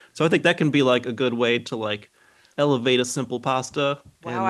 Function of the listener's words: taking over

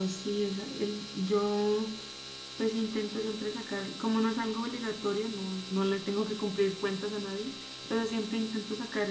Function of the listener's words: listening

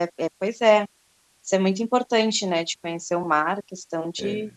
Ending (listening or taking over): listening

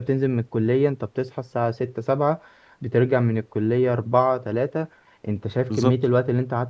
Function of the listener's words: listening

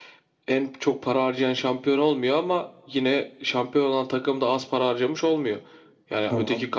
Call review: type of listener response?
listening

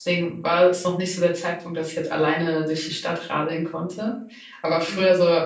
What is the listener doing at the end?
listening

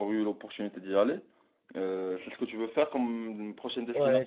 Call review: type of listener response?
taking over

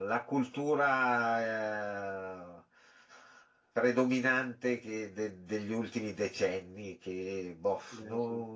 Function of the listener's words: listening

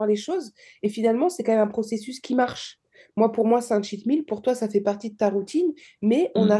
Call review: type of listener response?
listening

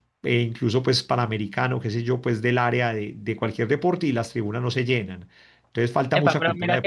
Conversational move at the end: taking over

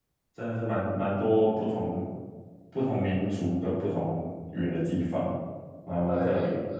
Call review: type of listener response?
taking over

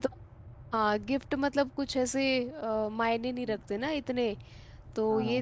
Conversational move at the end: taking over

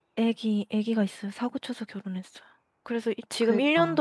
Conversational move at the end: listening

